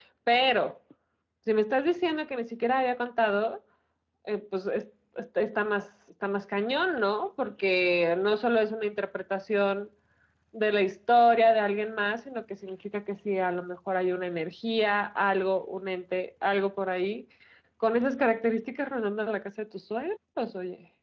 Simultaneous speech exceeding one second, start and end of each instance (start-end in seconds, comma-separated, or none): none